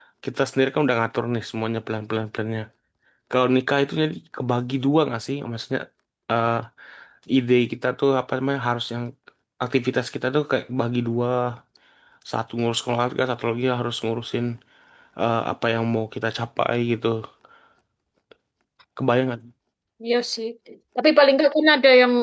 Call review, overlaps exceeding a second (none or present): none